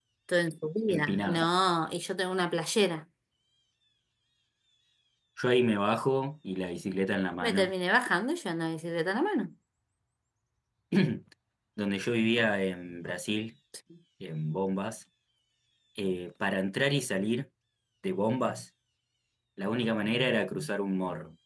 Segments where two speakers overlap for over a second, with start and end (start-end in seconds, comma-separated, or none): none